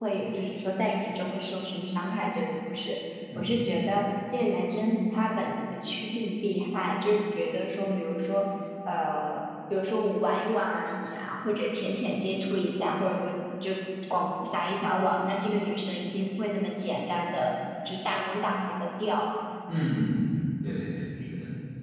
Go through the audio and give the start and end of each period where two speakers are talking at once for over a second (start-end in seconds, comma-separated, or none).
none